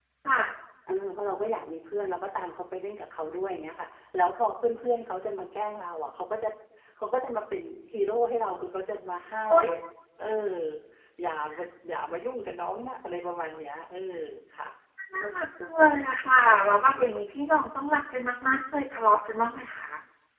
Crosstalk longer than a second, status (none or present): none